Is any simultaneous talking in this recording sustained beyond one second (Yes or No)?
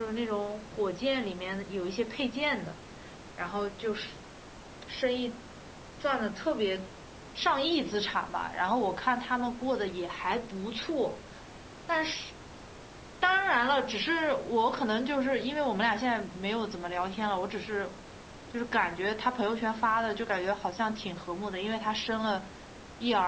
No